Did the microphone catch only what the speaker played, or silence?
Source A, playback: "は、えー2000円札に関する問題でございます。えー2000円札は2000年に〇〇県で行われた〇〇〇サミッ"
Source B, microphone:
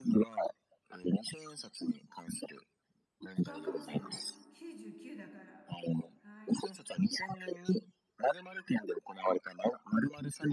No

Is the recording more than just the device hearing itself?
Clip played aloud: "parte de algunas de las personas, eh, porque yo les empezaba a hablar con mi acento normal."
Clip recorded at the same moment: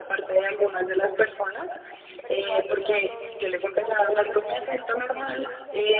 Yes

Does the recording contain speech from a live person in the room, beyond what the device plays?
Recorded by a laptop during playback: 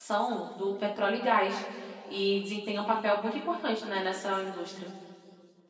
Yes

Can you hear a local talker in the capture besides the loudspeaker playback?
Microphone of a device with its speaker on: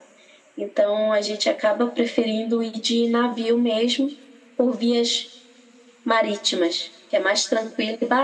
No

